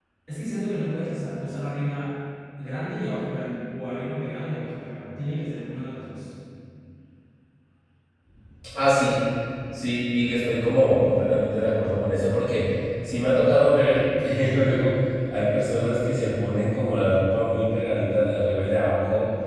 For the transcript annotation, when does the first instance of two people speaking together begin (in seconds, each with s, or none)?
none